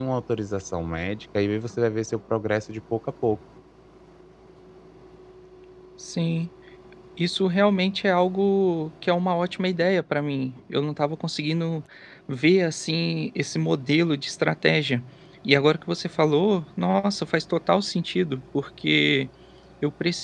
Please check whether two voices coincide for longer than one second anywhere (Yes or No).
No